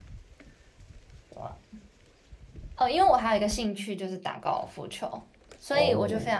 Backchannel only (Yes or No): Yes